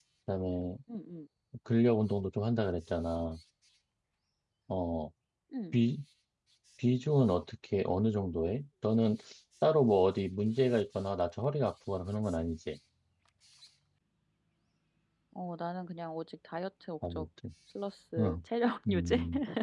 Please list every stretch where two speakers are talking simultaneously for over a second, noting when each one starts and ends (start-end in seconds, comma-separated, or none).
none